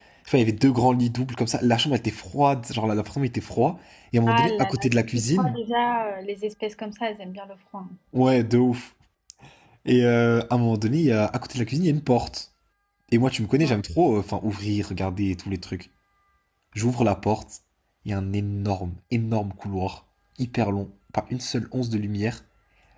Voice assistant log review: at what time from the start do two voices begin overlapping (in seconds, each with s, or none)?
4.3 s